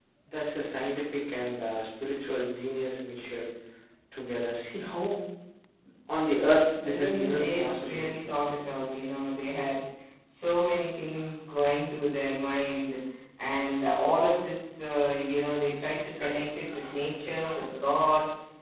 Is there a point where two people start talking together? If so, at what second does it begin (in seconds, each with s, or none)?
6.8 s